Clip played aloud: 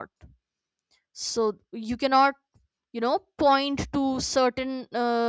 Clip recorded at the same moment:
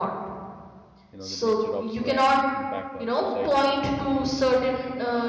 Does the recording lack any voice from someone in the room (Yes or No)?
No